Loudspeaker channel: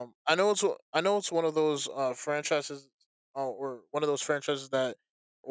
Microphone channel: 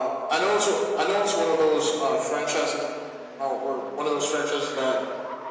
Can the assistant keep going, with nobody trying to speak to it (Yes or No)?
Yes